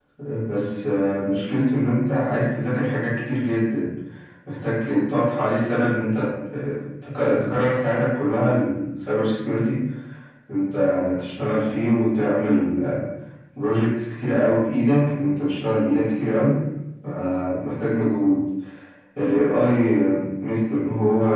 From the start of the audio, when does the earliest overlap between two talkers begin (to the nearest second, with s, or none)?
none